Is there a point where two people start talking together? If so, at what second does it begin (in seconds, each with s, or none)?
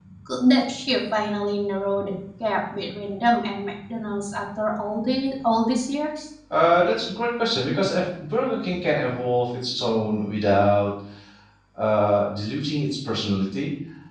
none